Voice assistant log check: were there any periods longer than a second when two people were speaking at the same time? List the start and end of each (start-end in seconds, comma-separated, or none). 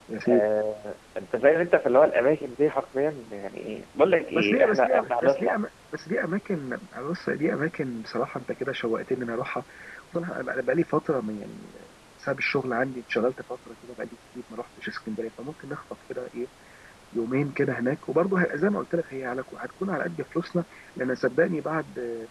4.3-5.6